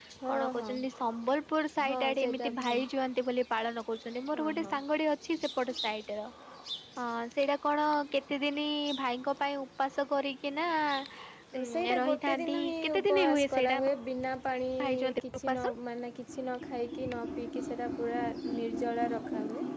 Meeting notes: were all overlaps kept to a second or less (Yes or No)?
No